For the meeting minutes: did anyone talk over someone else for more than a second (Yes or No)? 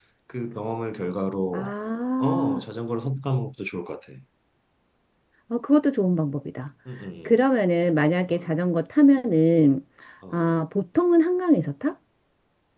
No